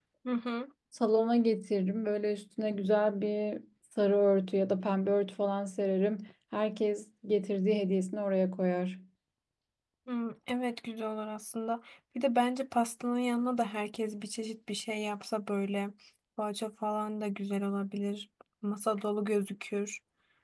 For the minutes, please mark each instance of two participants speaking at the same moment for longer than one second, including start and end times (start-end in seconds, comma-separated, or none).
none